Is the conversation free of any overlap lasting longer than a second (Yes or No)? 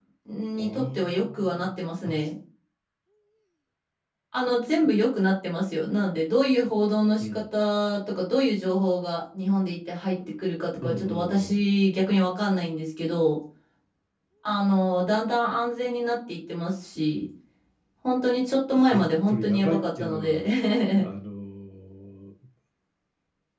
No